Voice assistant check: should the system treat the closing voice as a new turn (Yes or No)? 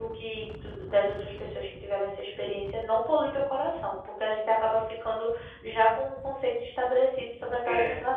No